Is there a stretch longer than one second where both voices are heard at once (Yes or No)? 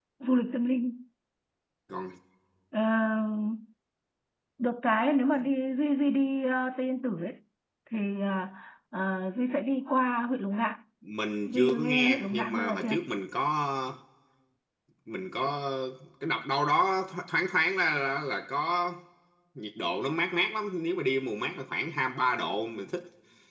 Yes